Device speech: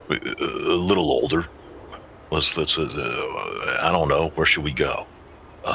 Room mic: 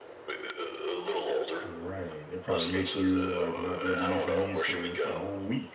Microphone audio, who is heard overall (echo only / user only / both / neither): both